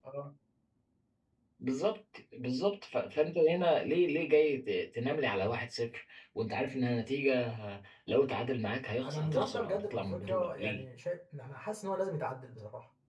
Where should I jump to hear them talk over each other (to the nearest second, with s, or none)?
9 s